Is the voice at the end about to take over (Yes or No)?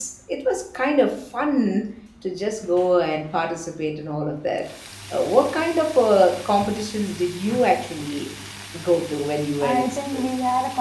Yes